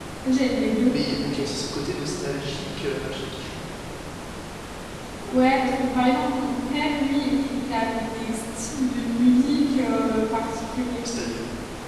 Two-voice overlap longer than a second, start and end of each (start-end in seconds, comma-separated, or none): none